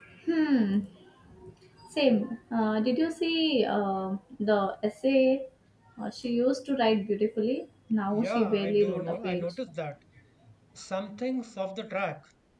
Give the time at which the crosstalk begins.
8.1 s

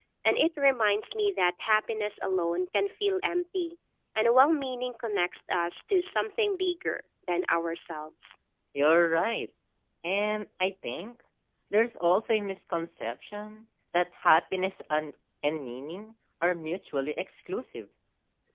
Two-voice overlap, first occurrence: none

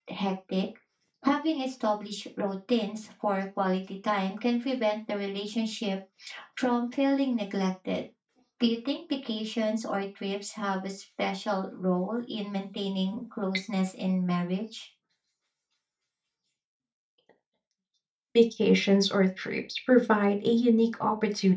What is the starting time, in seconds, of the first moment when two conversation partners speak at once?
none

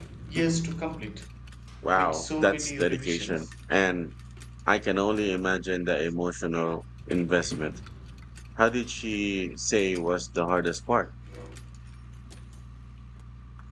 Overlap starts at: 2.0 s

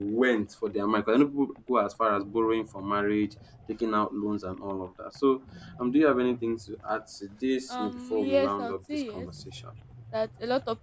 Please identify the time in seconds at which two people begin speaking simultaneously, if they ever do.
7.7 s

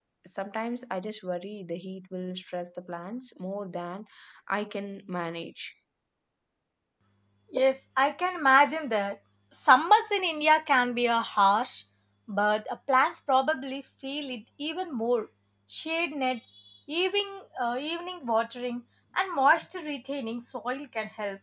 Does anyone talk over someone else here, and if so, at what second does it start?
none

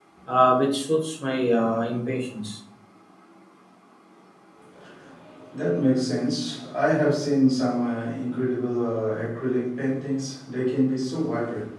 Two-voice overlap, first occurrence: none

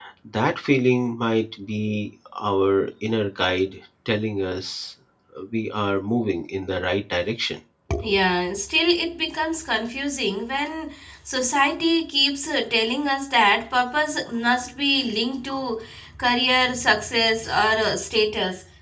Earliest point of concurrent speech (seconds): none

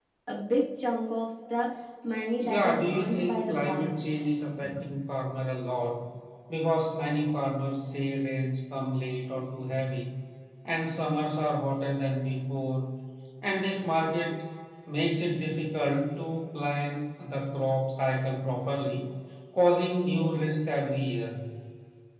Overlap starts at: 2.4 s

